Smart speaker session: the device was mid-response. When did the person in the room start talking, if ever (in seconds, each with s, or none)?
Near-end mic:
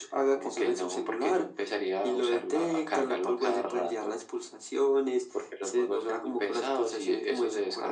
none